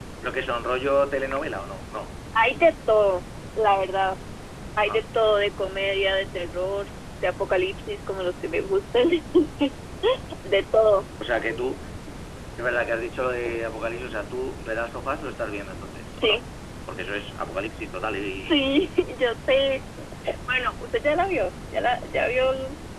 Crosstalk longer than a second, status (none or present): none